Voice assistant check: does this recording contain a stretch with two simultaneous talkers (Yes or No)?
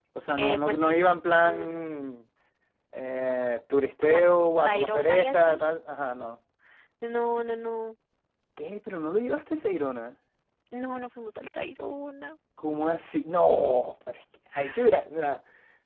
Yes